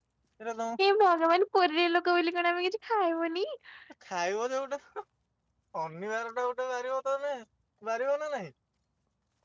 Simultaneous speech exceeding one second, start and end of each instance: none

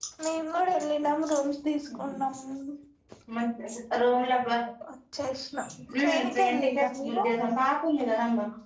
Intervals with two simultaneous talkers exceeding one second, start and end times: 6.0-7.2

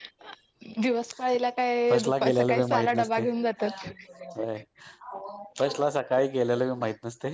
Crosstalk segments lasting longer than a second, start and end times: 1.9-3.2

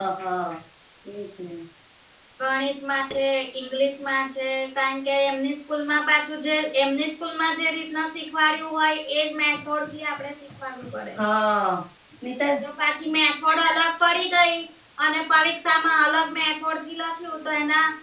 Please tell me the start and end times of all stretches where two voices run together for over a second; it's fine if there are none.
none

